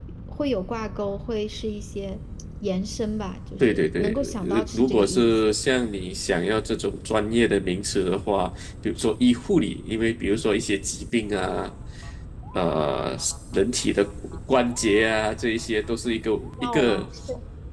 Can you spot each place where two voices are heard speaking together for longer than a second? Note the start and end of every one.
3.6-5.5

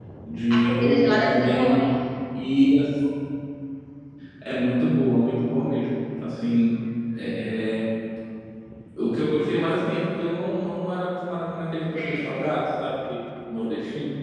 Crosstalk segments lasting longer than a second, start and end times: 0.5-1.8

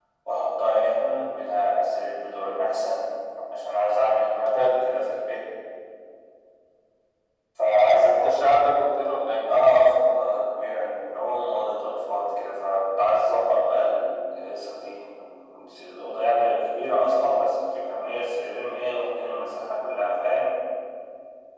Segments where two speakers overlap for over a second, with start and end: none

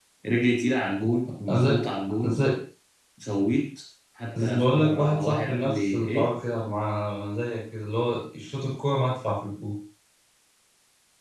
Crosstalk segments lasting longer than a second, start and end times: 4.4-6.2

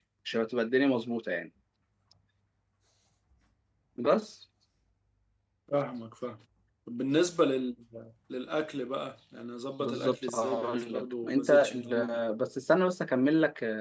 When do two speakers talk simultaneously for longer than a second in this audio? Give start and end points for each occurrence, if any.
9.8-12.2

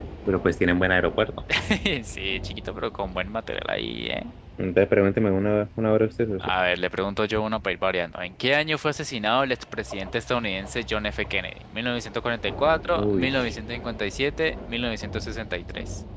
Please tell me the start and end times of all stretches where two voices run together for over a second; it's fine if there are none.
none

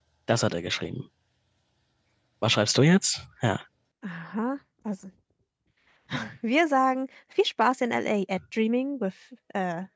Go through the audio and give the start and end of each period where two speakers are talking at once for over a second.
none

